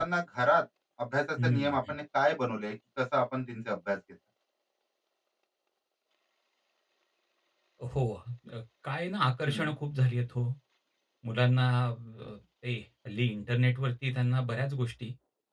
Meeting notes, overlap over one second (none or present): none